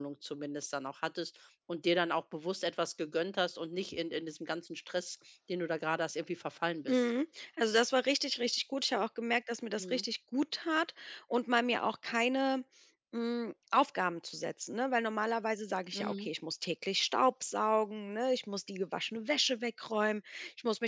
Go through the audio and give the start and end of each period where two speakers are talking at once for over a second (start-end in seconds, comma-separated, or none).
none